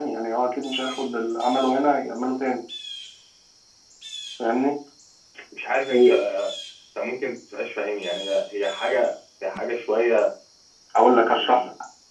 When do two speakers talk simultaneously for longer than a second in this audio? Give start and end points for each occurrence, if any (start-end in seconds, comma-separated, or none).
none